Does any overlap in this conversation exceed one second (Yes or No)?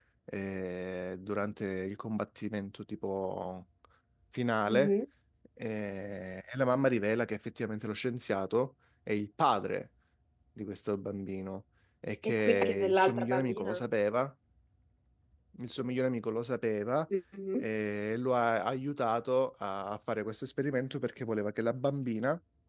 Yes